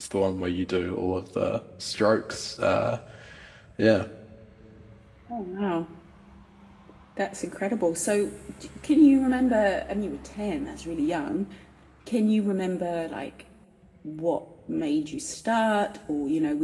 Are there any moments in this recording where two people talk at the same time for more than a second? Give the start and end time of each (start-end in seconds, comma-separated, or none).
none